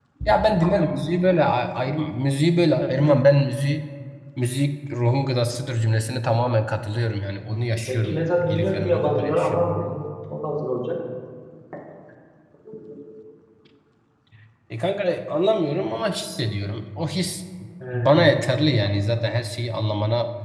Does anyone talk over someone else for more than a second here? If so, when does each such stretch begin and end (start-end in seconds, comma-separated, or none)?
7.8-10.0